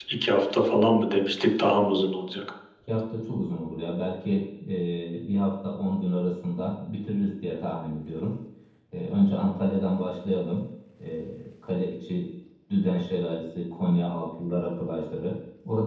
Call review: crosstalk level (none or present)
none